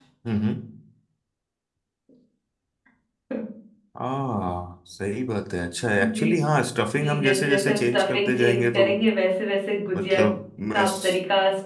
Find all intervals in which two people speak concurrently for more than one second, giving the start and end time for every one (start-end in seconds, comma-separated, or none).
7.0-8.8